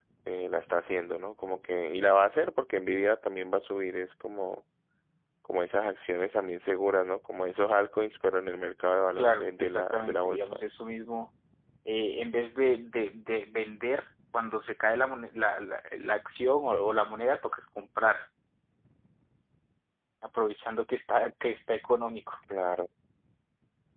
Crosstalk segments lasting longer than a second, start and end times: 9.2-10.6

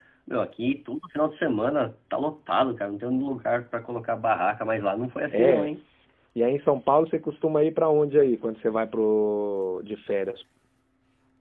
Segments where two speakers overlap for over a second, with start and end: none

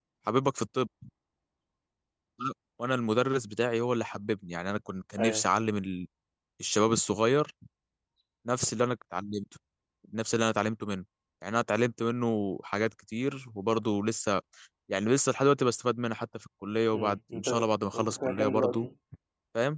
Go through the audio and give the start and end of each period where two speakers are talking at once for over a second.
16.9-18.9

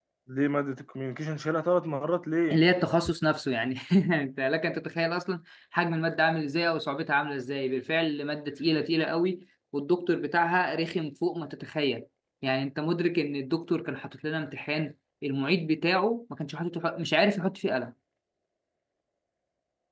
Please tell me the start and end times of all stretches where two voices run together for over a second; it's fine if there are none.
none

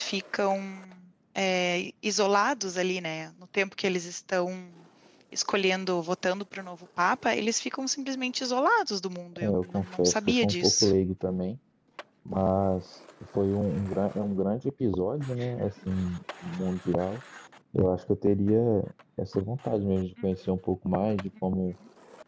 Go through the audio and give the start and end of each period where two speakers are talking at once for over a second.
9.4-10.9

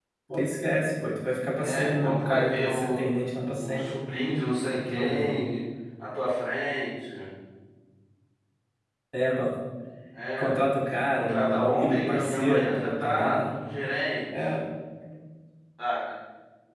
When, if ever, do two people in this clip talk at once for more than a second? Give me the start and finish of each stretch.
1.6-3.0, 11.2-13.5

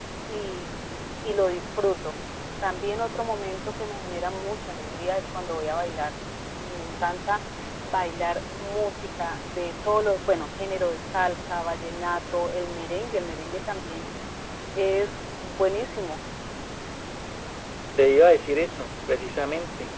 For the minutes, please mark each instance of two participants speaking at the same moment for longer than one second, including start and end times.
none

